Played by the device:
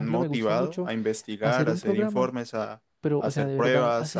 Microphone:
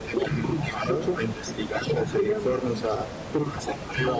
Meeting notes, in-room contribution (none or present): none